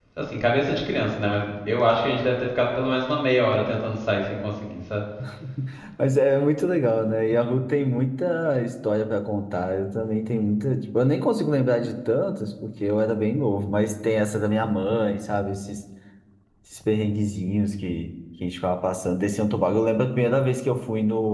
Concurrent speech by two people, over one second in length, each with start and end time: none

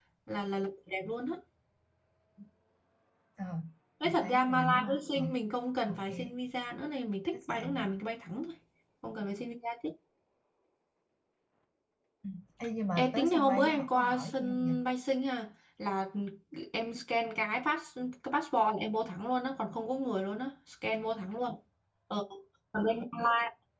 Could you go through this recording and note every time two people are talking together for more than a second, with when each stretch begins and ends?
4.0-5.3, 13.0-14.7

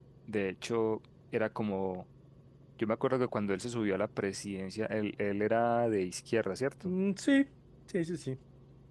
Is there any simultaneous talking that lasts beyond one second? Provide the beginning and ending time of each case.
none

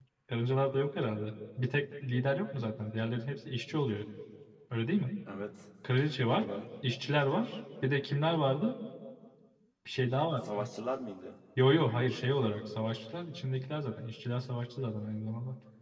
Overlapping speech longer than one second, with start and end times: none

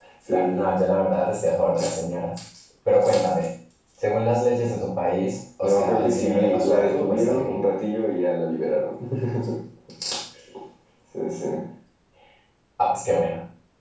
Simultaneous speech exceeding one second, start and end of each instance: 5.6-7.6

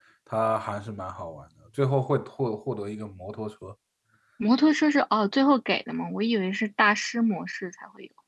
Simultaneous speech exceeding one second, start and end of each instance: none

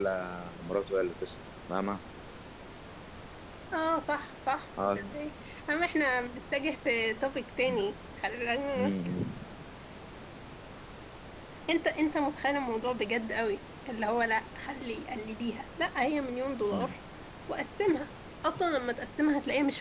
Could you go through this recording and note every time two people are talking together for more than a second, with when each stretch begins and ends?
none

